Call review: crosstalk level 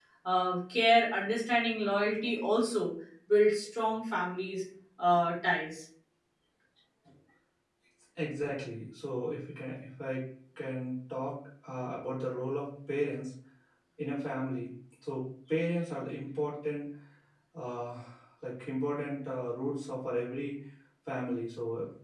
none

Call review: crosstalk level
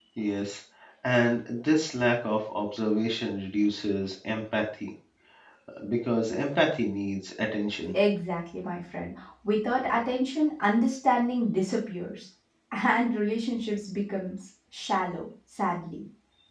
none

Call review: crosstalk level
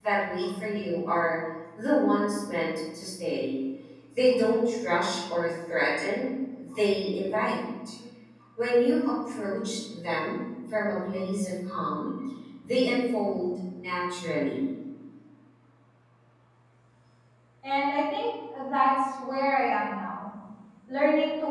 none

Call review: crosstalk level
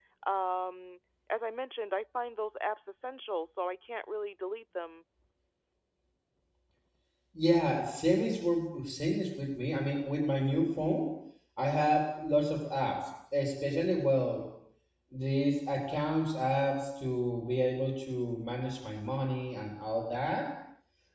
none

